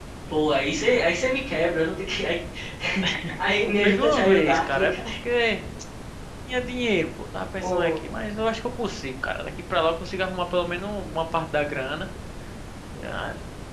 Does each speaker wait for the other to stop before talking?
No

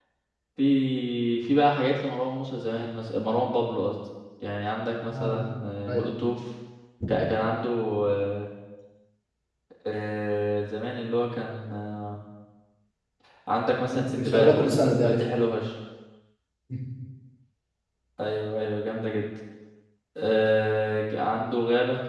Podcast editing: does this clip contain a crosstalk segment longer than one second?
Yes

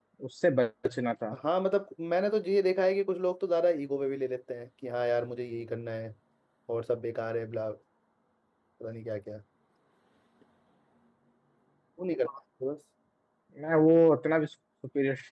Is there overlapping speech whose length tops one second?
No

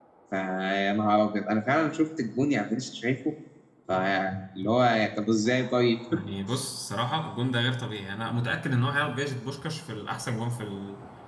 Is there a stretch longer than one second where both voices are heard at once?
No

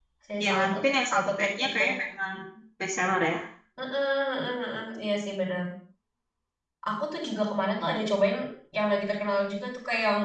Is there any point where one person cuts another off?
Yes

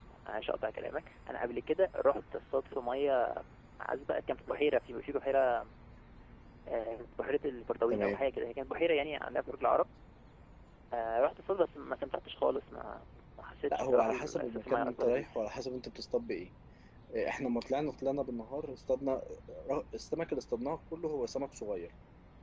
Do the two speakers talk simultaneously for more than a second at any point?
Yes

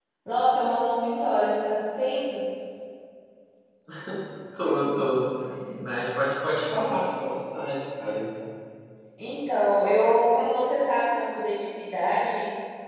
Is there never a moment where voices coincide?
Yes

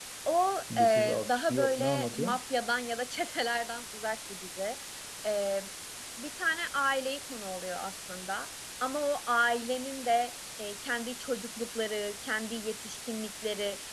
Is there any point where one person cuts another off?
Yes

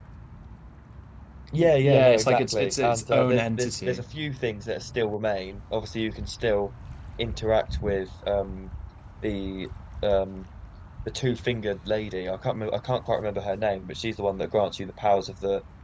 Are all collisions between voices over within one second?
No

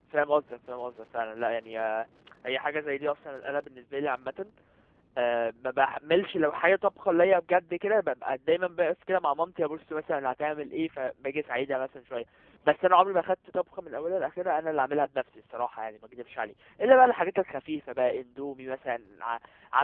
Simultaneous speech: No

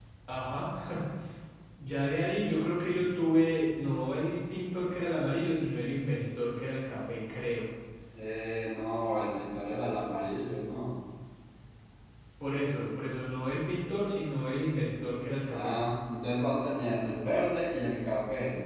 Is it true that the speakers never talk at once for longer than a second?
Yes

